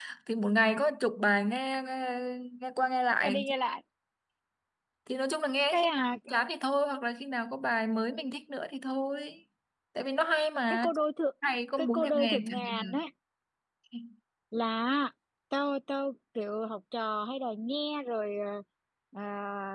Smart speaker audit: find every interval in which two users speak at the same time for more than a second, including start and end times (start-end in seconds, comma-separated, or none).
11.8-13.0